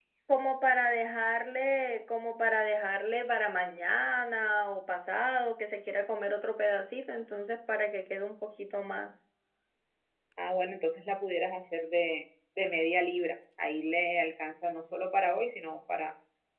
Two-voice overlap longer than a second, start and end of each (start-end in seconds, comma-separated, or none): none